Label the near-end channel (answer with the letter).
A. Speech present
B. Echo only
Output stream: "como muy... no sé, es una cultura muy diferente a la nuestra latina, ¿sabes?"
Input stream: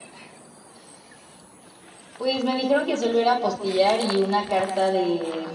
A